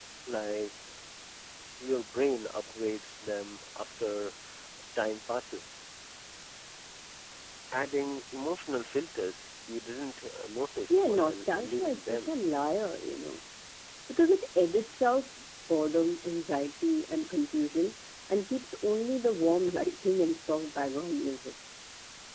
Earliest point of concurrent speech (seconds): 10.9 s

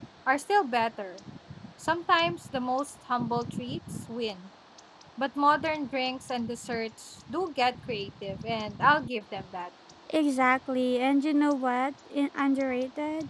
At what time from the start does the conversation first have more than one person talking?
none

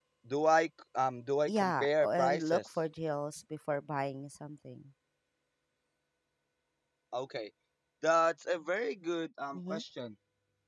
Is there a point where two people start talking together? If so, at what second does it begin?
1.5 s

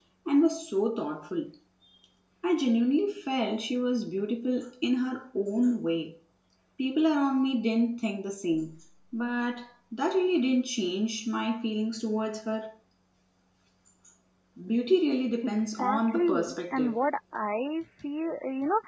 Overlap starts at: 15.4 s

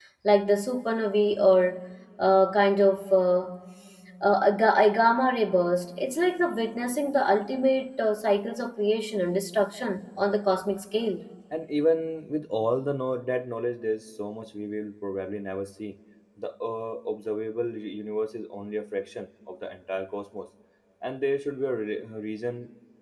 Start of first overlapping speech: none

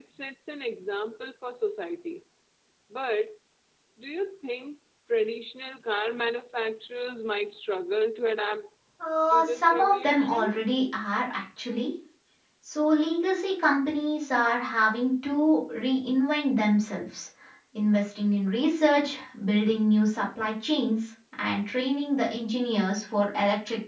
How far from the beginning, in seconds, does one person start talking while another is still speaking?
9.3 s

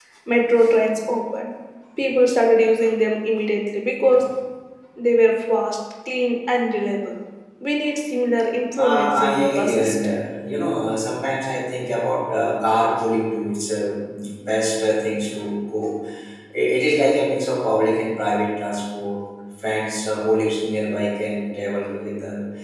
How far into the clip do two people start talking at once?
8.8 s

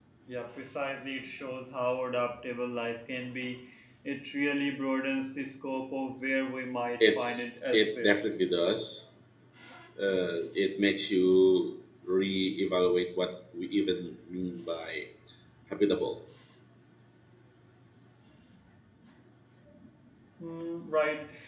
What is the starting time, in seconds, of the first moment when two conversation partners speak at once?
7.0 s

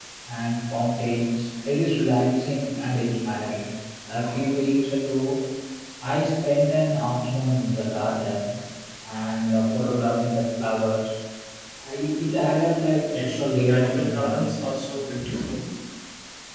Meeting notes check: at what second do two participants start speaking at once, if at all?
13.1 s

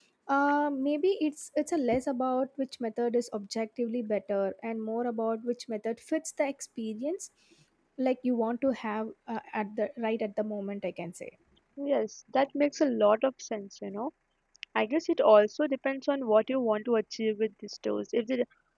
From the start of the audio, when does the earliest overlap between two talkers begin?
none

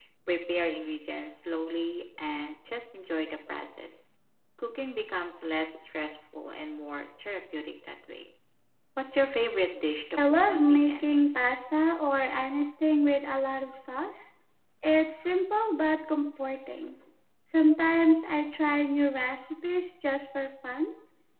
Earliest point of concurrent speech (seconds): 10.2 s

